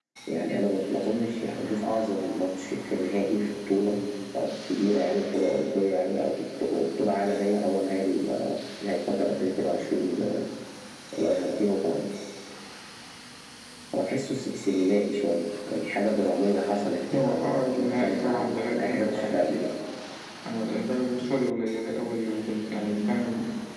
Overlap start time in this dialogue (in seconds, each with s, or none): 17.1 s